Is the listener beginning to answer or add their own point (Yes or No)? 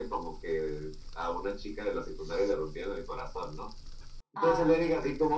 No